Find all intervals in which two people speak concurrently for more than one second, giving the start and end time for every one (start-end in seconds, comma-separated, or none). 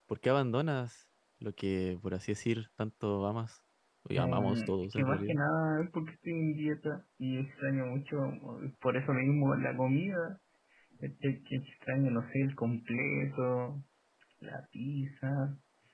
4.1-5.4